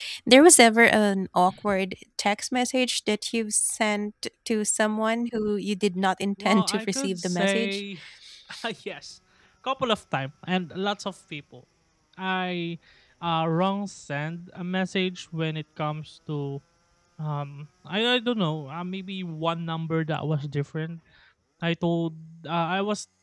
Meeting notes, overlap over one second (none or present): present